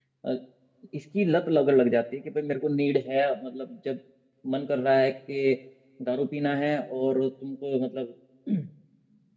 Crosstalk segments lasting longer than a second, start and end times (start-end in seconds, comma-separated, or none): none